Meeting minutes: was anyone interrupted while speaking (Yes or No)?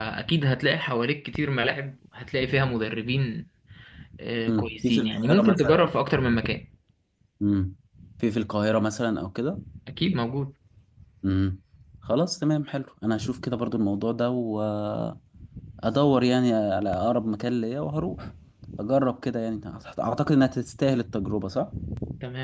Yes